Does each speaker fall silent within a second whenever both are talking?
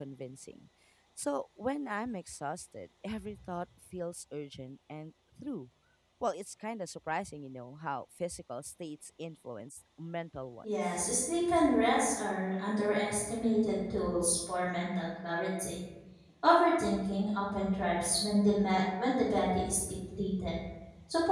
Yes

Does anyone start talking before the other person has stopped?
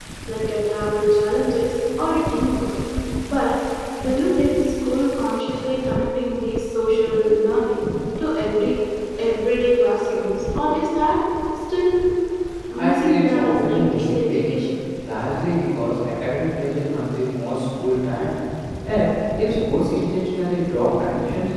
Yes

